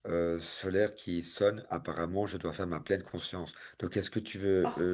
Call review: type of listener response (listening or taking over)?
listening